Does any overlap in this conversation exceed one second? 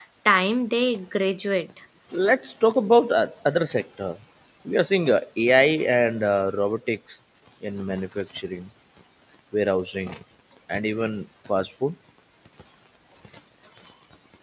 No

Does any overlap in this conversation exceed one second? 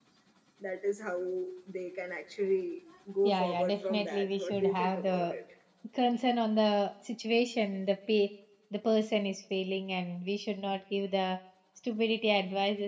Yes, from 3.2 s

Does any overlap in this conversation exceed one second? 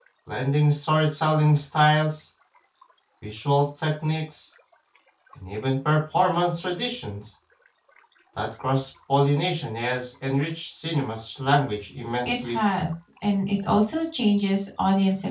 No

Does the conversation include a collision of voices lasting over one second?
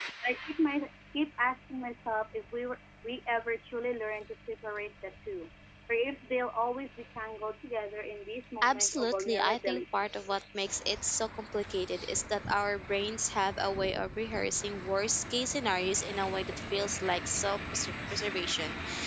Yes, from 8.6 s

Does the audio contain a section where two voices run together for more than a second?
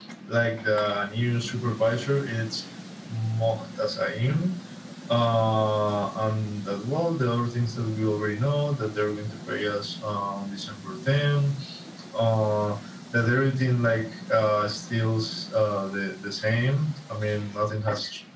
No

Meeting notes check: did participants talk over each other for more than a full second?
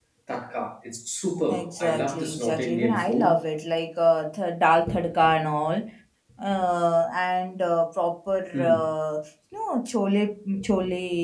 Yes, from 1.5 s

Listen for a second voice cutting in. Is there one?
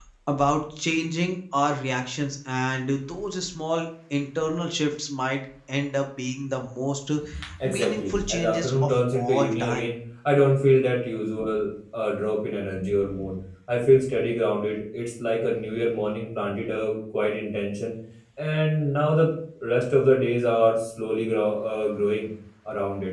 Yes, from 7.6 s

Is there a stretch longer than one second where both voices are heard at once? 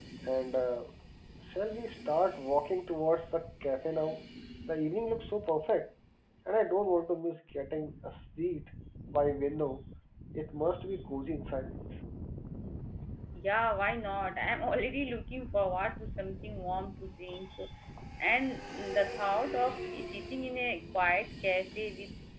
No

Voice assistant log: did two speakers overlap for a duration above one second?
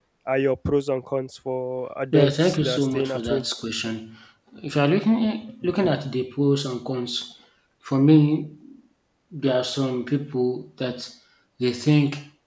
Yes, from 2.1 s

